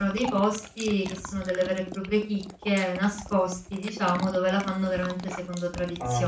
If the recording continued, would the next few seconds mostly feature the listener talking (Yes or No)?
No